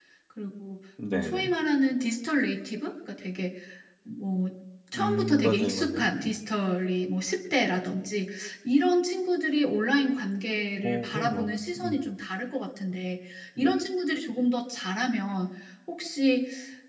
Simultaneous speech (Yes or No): Yes